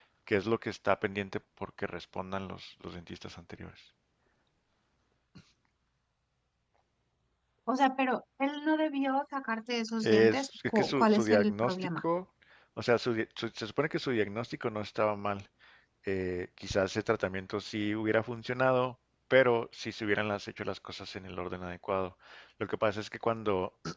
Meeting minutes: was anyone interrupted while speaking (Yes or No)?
Yes